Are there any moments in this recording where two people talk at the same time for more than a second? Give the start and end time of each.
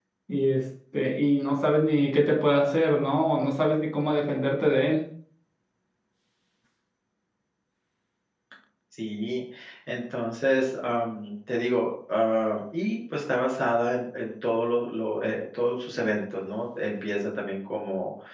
none

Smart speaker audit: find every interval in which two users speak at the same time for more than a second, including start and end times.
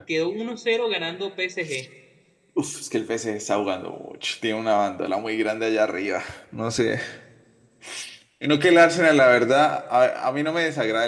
none

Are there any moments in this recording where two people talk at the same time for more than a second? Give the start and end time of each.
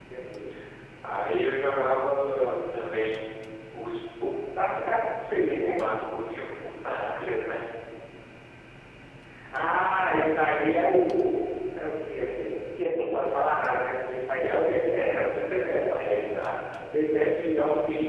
14.9-16.3

